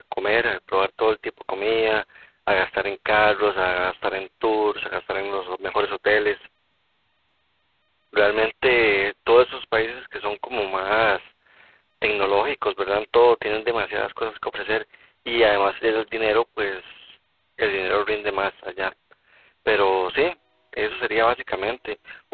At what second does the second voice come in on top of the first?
none

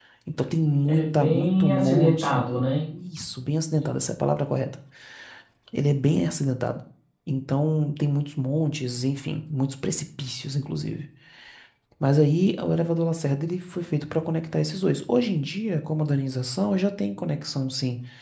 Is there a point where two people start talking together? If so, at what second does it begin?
1 s

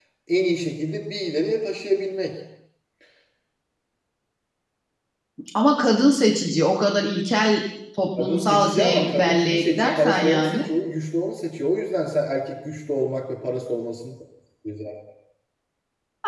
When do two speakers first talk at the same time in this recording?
8 s

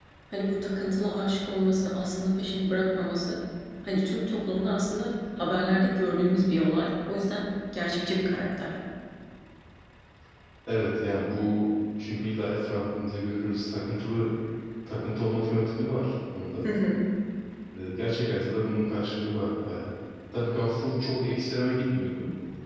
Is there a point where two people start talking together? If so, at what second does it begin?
none

